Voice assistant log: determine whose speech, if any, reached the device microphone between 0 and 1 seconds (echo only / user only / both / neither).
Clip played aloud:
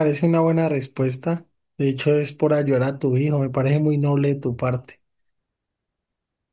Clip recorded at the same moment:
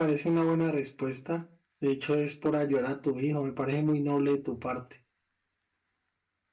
echo only